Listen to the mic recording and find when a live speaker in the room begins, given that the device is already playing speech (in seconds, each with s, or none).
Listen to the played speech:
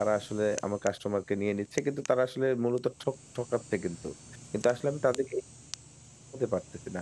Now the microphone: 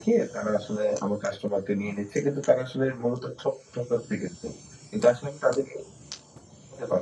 none